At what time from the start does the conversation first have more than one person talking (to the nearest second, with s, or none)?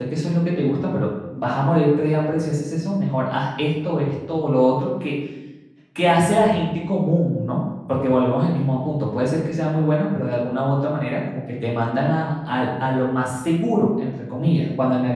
none